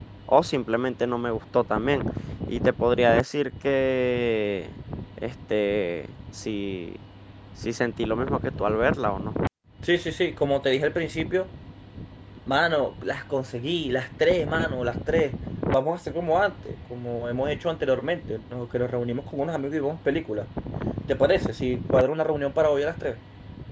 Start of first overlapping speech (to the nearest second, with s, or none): none